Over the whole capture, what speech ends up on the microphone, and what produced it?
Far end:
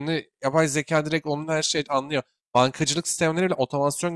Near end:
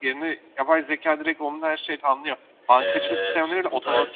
both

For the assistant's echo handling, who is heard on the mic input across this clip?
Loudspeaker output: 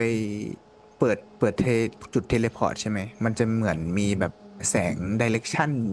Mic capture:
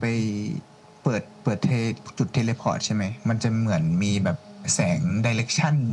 echo only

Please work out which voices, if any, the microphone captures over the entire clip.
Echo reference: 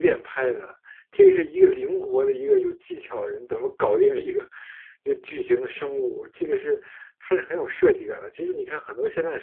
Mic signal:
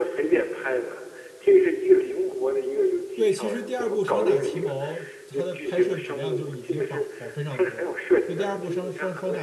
both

